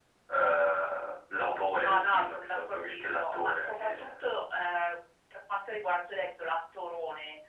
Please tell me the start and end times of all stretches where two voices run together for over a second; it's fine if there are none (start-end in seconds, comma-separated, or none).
1.8-4.2